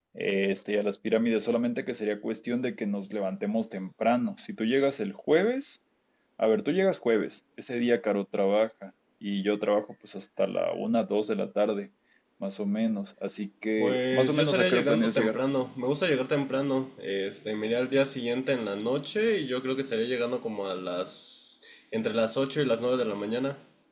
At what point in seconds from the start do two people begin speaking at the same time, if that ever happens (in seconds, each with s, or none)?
13.8 s